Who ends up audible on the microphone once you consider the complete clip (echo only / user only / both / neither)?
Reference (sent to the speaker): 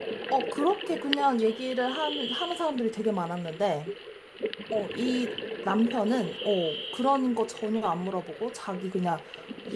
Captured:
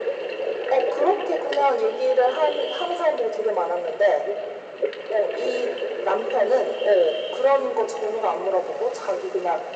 echo only